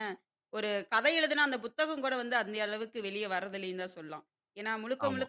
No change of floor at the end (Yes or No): Yes